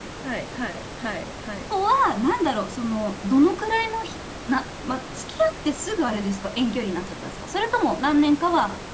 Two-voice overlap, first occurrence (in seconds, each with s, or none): none